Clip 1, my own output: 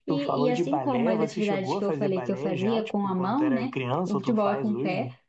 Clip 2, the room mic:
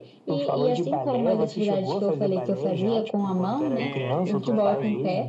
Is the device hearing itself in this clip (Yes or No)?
Yes